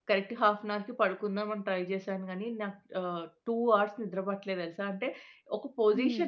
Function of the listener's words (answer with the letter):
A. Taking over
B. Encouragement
B